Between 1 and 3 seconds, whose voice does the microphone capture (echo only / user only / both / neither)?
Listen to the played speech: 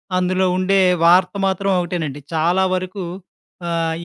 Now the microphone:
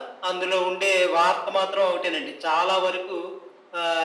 echo only